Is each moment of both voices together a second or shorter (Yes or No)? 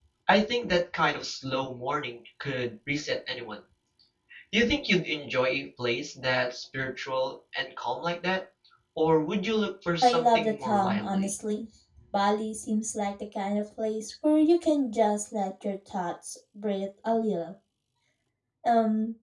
No